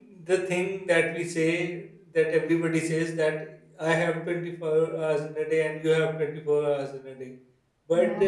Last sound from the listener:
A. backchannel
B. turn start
A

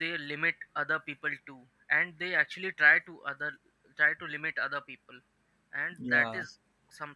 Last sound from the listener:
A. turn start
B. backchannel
B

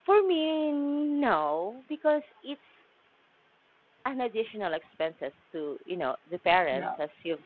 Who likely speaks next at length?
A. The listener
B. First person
B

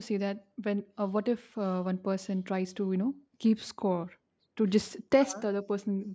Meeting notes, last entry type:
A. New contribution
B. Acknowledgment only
B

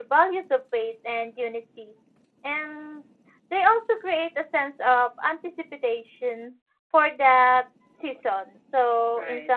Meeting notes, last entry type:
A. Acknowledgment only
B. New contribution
A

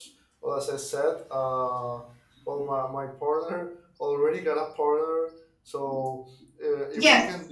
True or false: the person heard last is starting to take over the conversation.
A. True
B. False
B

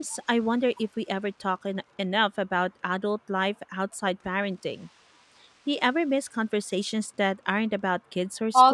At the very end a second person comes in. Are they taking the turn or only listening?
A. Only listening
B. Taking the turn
B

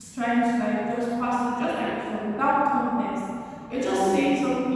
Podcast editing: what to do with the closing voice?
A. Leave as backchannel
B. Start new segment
A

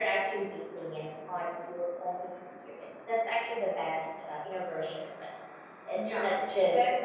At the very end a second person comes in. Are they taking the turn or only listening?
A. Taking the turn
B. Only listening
A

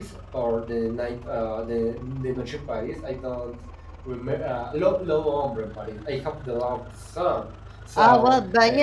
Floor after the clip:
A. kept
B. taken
B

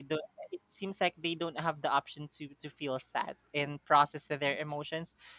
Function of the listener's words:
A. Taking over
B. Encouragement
B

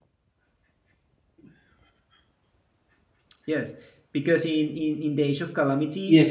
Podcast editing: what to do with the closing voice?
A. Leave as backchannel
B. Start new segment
B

